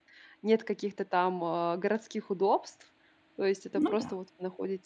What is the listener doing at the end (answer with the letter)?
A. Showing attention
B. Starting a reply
A